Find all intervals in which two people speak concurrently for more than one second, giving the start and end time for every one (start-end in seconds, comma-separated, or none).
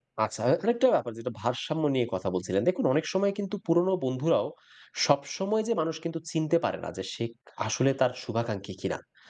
none